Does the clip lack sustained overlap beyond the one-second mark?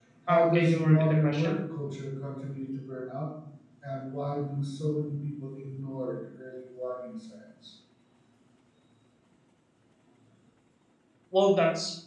No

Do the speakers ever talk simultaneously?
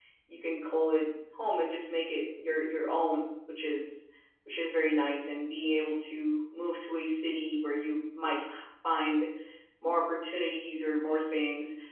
No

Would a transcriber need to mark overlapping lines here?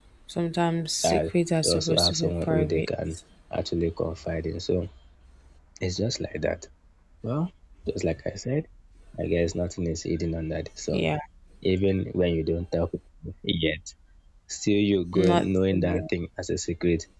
Yes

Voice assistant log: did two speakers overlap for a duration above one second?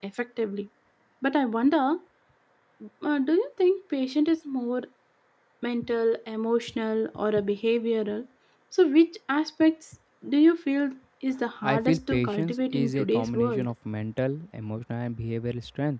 Yes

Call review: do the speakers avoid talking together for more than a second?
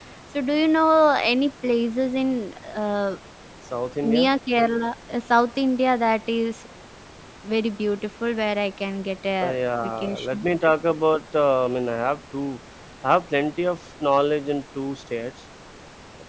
No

